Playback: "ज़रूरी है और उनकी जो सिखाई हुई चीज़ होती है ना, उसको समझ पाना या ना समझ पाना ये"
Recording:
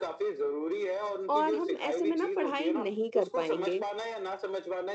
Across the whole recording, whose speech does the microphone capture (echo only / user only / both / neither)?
both